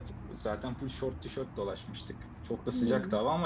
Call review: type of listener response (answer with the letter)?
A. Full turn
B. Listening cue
B